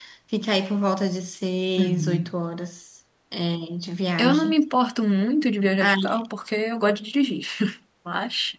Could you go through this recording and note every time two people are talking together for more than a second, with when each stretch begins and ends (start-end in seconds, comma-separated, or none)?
none